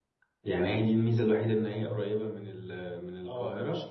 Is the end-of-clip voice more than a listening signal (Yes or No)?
Yes